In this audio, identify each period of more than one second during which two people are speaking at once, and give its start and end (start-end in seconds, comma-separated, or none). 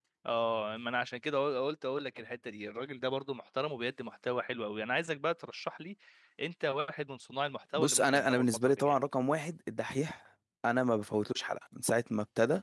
7.7-9.0